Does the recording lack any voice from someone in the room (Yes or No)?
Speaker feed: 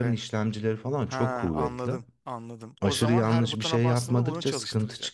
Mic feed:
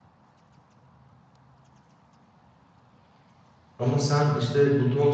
No